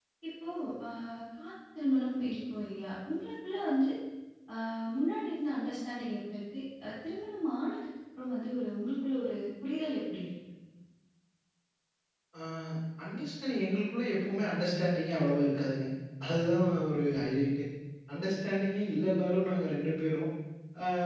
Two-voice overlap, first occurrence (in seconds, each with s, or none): none